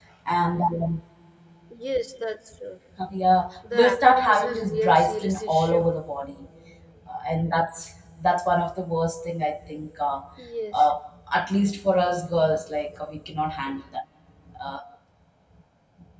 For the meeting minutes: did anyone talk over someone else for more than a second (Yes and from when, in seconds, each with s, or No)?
Yes, from 3.7 s